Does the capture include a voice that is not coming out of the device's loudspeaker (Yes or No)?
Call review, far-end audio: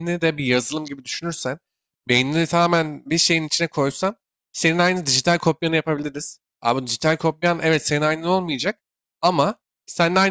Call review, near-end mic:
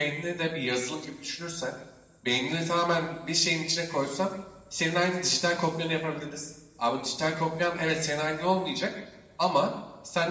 No